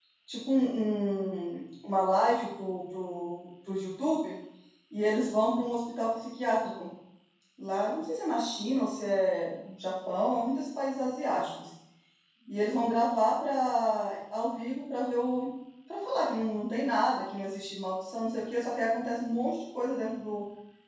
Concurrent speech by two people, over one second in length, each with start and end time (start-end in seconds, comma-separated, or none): none